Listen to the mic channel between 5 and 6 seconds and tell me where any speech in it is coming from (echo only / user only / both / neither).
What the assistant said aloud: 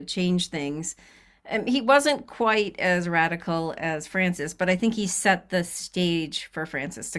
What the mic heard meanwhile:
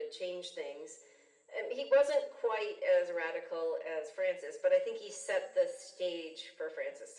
echo only